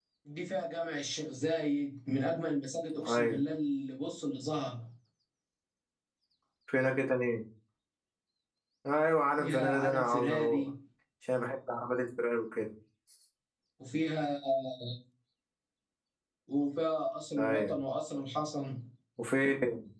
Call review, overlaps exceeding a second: present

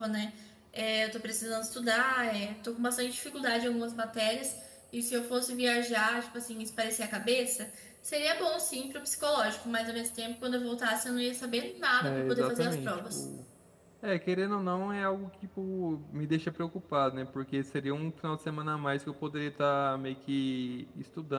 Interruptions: present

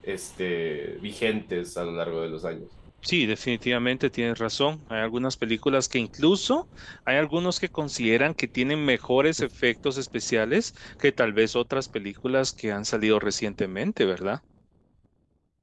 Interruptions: none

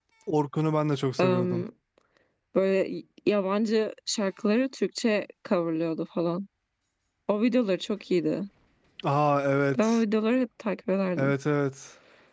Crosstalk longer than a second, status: none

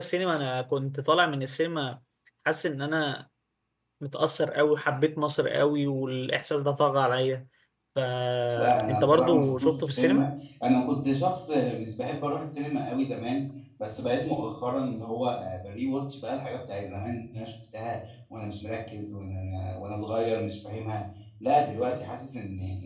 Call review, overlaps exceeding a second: present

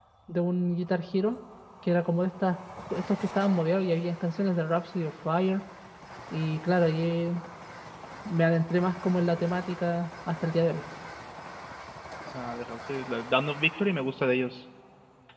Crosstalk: none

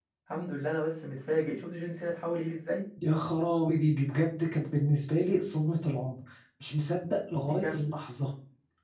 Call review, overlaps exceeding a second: none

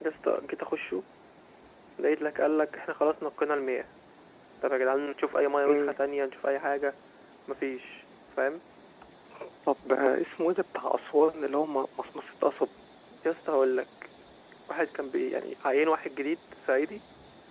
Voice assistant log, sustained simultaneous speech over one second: none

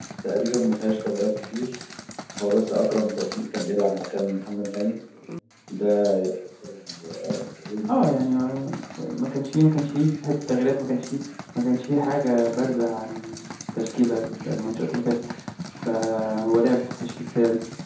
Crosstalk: none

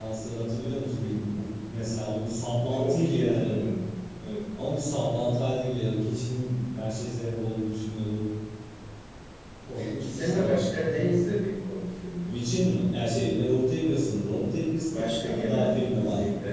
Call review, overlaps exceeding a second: present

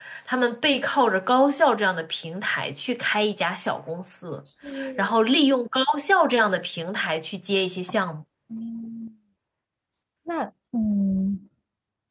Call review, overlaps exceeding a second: none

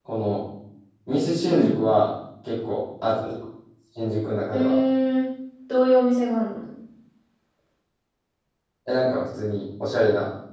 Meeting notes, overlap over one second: none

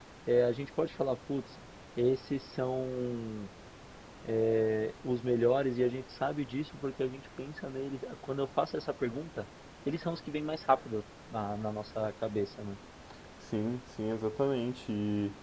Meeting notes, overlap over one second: none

